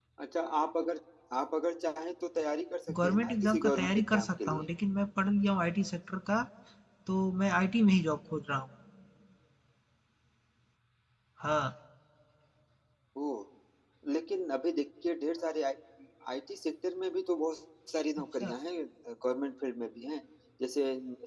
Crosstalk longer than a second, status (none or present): present